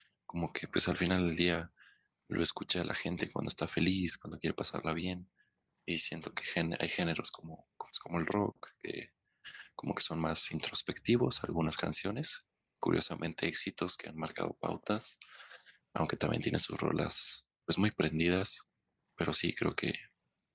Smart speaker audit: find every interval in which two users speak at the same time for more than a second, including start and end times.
none

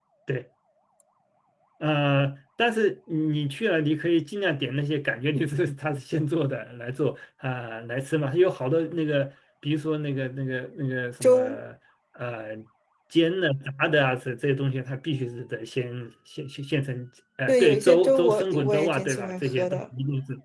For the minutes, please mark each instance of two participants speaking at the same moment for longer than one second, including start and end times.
17.5-19.9

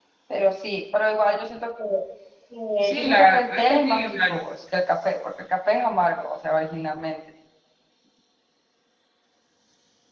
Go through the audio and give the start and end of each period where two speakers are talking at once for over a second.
2.8-4.2

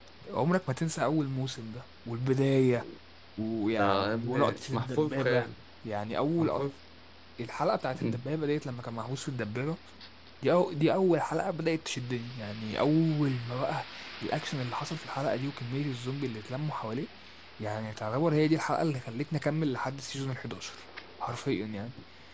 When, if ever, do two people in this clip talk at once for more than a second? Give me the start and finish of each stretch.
3.8-5.5

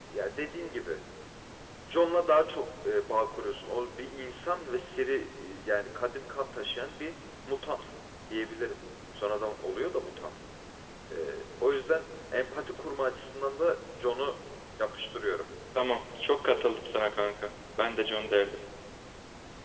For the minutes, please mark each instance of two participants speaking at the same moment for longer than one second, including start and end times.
none

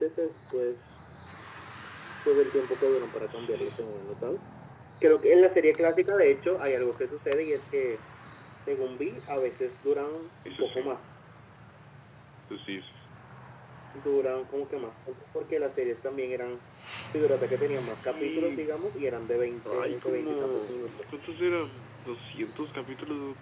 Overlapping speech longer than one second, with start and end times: 17.3-18.6, 19.7-20.9

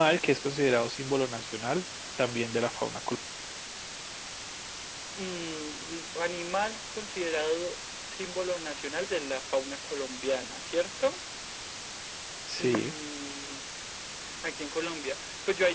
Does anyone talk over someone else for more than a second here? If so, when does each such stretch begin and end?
none

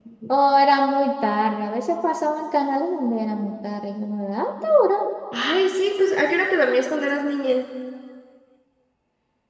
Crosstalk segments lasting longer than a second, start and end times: none

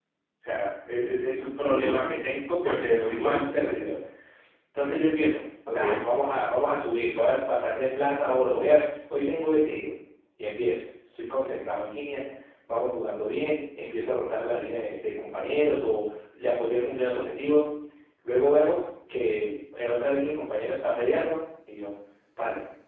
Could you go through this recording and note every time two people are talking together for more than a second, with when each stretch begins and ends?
2.6-3.8

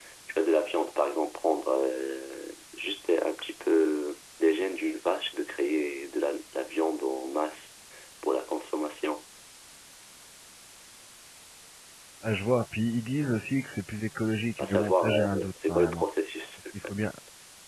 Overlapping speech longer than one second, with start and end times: 14.6-16.0

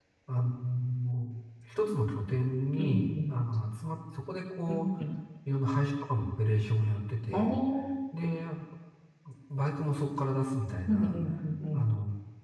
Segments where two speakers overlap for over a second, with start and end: none

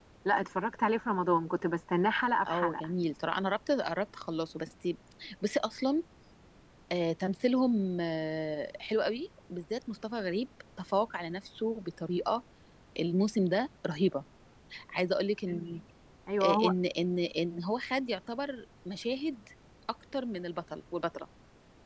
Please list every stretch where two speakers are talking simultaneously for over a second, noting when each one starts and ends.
none

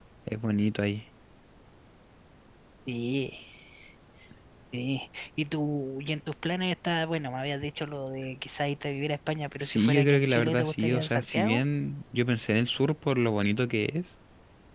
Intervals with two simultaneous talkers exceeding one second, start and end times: 9.6-11.6

